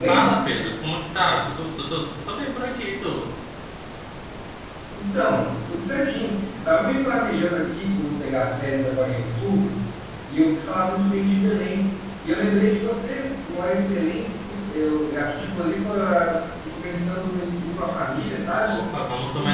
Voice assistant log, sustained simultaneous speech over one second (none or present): none